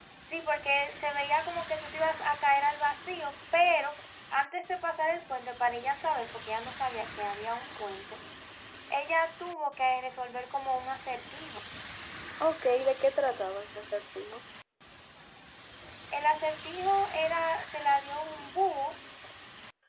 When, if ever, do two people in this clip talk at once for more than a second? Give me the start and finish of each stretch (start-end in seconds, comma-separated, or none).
none